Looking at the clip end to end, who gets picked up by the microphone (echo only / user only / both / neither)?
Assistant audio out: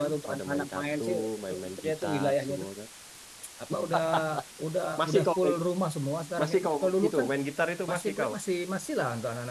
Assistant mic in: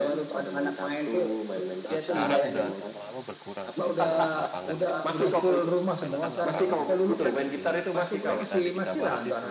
both